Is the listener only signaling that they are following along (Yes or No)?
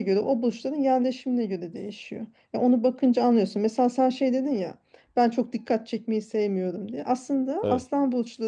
Yes